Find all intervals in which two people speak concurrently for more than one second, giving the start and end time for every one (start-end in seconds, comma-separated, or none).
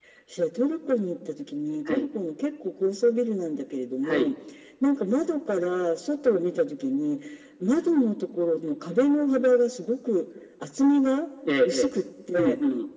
none